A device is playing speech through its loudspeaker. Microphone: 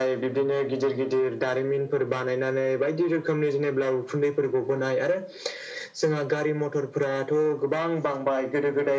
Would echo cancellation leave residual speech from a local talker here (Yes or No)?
No